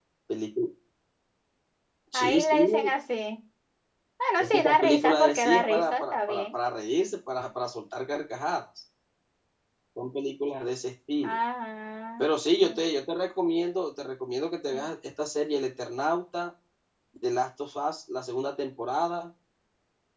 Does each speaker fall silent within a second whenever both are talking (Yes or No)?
No